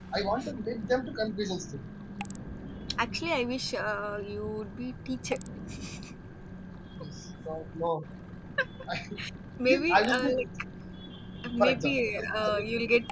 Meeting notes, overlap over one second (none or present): present